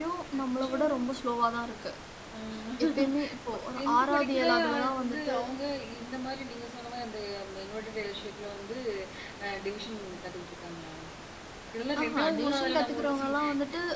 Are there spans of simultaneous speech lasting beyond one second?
Yes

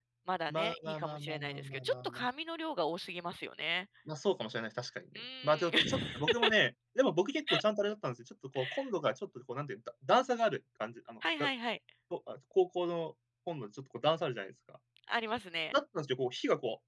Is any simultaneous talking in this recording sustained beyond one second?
Yes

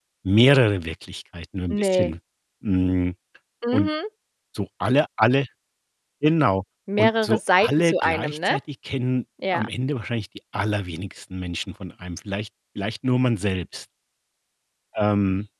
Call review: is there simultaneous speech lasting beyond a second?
Yes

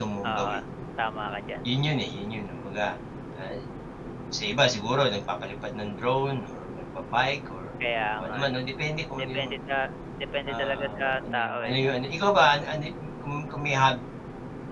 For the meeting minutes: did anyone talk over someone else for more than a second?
Yes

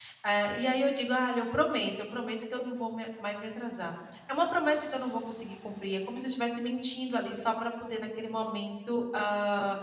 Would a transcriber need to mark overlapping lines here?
No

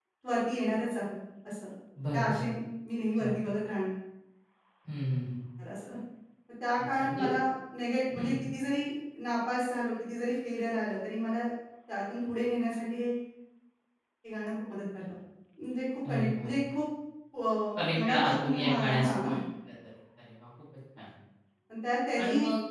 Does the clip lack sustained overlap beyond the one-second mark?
No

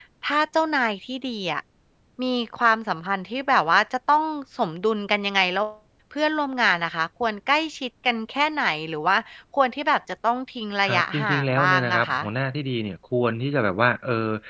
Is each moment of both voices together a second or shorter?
No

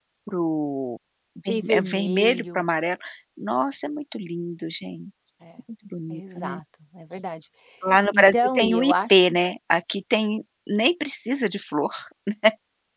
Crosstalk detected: Yes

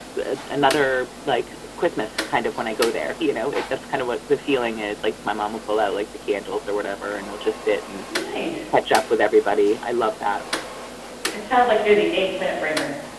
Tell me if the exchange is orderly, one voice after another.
Yes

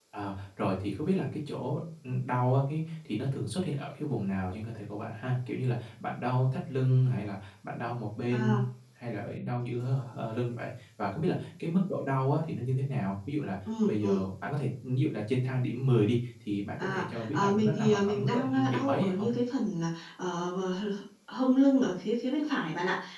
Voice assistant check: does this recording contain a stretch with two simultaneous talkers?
Yes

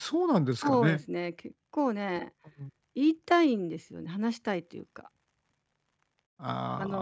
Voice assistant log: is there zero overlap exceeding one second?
Yes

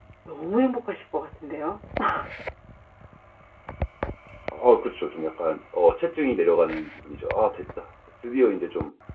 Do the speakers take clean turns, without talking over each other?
Yes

